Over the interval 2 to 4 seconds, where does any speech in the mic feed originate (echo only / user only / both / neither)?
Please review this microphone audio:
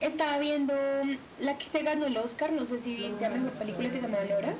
both